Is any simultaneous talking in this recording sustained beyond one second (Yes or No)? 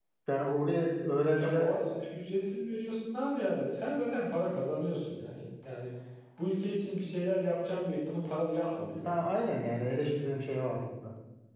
No